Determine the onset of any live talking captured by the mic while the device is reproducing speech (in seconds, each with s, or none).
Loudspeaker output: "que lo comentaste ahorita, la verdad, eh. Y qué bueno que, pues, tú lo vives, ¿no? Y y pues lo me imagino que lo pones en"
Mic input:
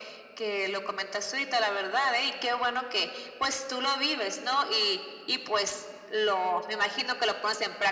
none